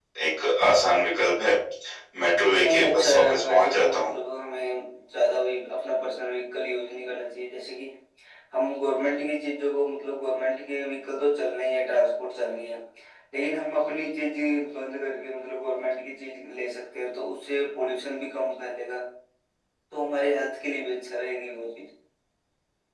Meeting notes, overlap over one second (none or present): present